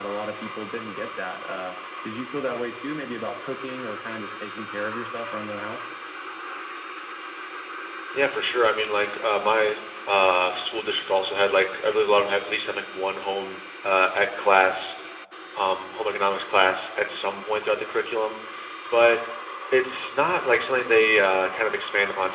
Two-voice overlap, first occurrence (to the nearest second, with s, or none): none